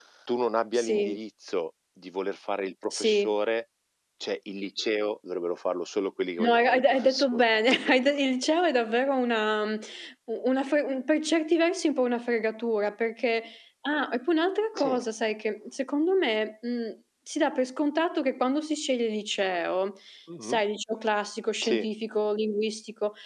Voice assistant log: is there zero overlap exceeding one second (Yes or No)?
No